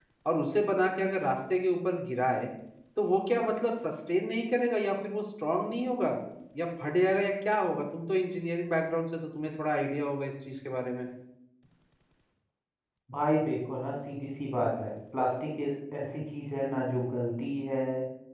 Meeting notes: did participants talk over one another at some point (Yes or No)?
No